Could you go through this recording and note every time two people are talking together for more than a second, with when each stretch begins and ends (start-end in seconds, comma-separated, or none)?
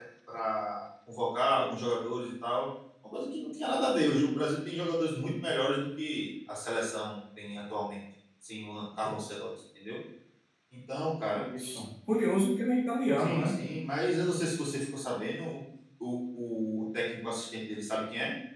none